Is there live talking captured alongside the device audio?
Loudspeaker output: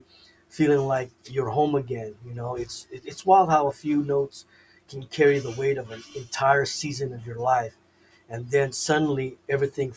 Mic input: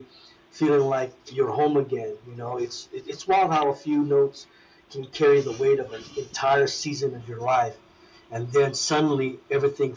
No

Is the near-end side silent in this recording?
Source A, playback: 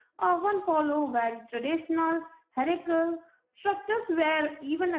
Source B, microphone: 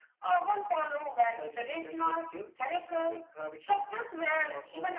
No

